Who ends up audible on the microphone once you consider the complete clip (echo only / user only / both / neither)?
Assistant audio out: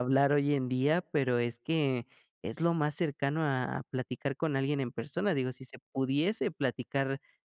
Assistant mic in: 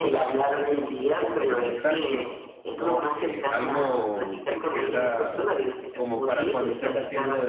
both